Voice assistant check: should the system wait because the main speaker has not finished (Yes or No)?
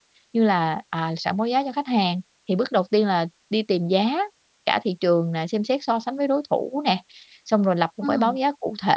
Yes